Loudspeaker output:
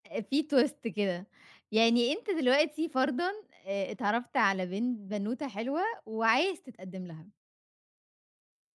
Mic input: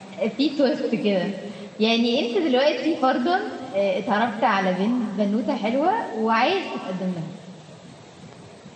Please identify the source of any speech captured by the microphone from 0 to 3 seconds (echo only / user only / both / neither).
echo only